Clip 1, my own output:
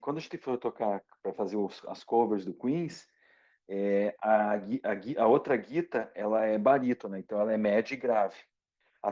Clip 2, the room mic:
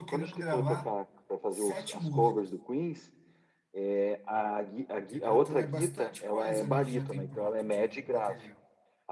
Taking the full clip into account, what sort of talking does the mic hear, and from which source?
both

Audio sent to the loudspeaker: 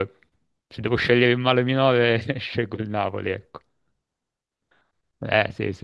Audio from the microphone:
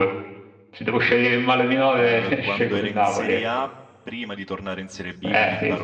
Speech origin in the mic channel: both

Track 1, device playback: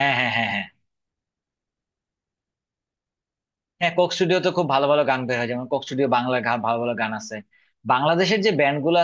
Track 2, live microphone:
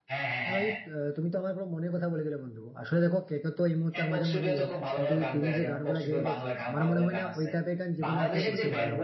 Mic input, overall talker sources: both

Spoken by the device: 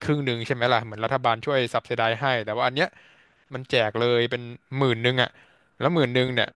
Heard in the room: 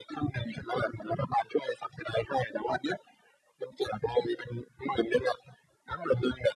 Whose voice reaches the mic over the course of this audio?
echo only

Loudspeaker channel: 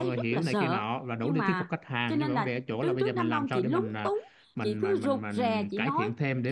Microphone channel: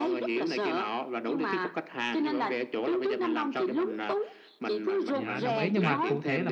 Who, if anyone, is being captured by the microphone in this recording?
both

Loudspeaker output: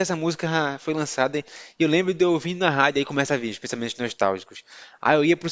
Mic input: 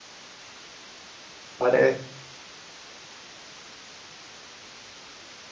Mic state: user only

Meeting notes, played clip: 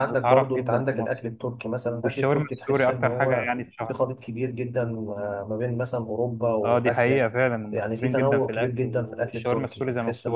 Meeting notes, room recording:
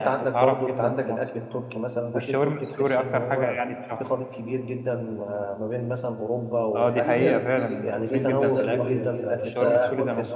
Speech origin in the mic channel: both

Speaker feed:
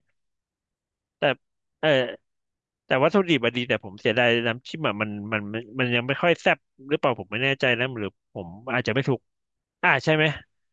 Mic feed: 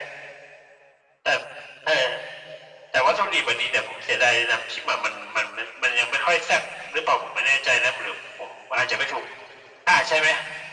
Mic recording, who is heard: echo only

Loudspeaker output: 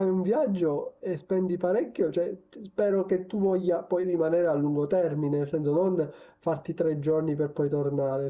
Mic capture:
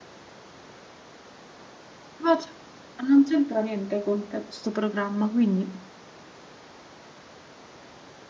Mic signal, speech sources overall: user only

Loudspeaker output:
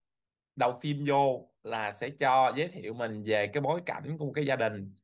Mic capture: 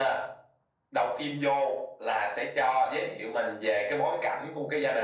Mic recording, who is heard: echo only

